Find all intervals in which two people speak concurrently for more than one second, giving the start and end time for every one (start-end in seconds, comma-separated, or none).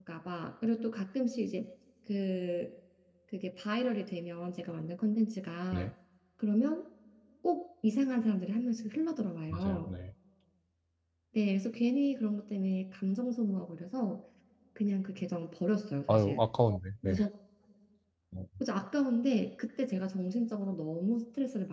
none